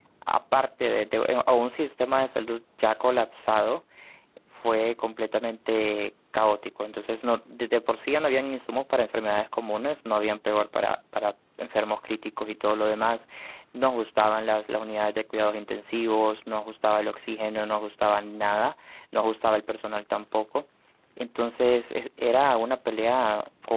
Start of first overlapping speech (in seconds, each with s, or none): none